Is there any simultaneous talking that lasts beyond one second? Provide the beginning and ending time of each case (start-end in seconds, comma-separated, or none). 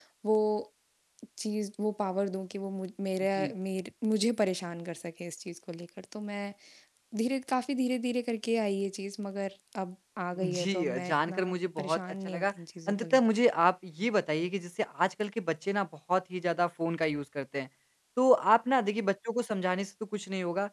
10.6-12.5